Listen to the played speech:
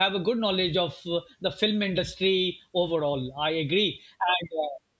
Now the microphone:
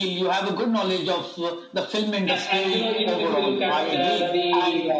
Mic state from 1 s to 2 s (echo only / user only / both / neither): echo only